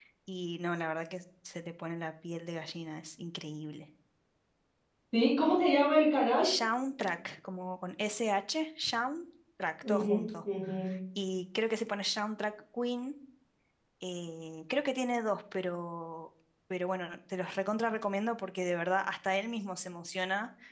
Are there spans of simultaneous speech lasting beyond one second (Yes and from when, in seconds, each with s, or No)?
No